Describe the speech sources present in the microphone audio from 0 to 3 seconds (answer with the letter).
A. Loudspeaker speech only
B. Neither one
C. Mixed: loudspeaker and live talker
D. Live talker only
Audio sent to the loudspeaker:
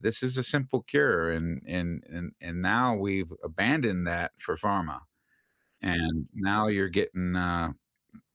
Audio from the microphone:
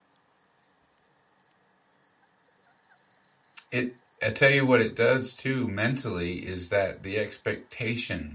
B